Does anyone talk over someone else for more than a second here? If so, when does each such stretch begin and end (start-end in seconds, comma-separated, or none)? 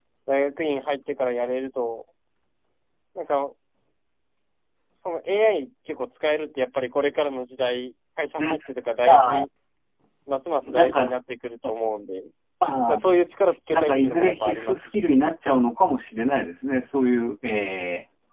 13.7-15.1